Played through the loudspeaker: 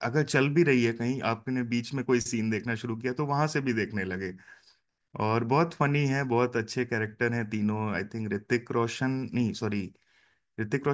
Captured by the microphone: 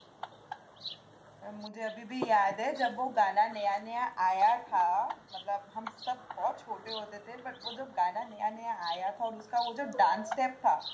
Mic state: user only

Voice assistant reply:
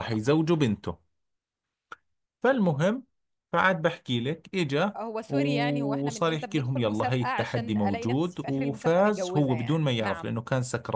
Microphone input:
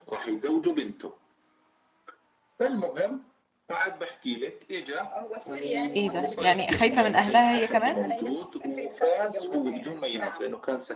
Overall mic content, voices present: both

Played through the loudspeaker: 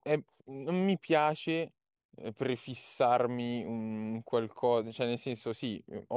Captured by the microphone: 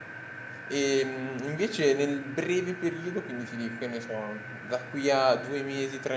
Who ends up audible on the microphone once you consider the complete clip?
user only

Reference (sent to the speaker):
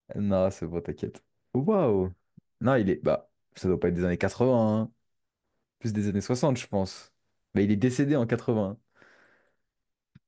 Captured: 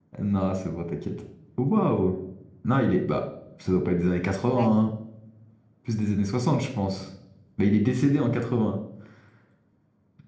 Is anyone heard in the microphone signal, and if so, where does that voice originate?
both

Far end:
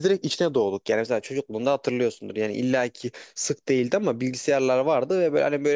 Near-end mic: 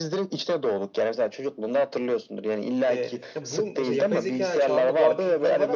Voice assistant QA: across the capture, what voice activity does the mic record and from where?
both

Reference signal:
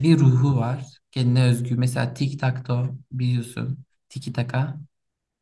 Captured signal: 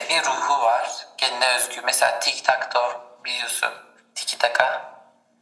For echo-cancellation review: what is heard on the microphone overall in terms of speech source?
echo only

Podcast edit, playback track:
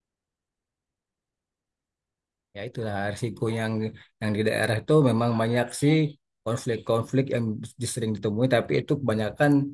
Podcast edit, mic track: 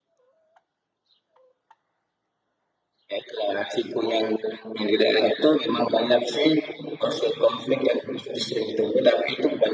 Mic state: echo only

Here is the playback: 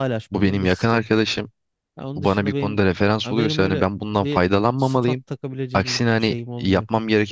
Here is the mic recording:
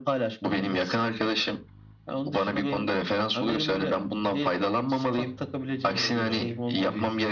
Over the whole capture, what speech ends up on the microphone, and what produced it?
both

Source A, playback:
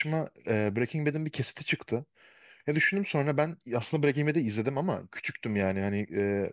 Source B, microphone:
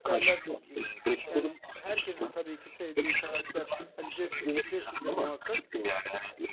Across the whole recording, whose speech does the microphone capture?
both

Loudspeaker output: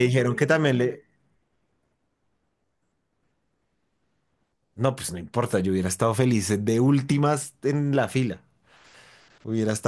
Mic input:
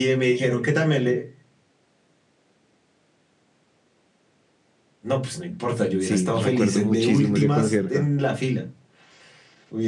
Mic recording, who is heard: both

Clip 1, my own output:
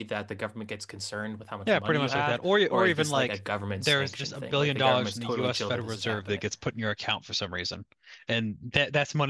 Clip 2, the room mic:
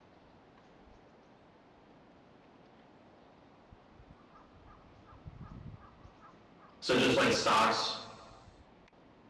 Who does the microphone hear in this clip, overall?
user only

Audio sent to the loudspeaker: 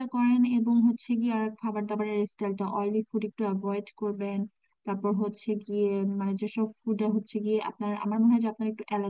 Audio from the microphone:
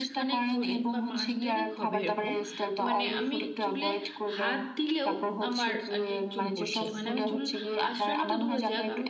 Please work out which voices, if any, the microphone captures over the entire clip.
both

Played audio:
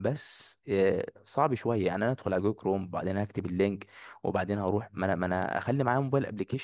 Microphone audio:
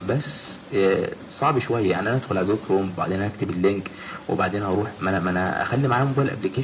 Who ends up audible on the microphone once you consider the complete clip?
echo only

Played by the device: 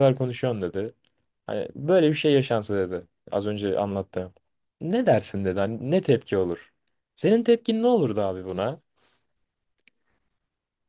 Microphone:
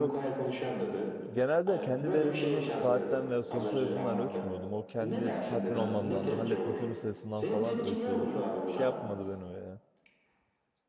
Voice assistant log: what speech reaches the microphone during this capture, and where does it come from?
both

